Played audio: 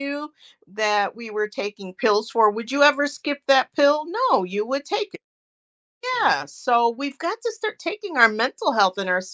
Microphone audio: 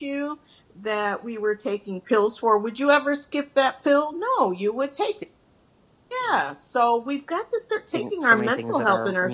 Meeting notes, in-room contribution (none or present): present